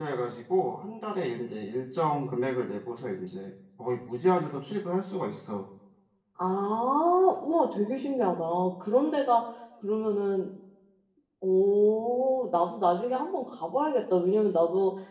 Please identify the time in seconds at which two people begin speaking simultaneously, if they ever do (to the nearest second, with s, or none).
none